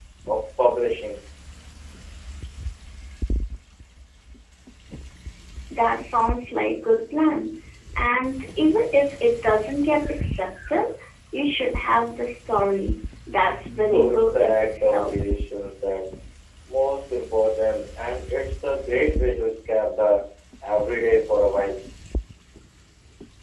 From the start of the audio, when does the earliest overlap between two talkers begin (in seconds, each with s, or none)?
13.8 s